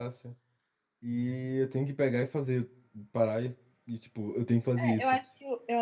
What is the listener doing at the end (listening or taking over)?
taking over